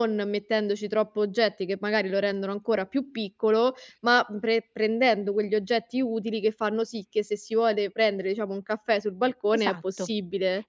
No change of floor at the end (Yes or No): No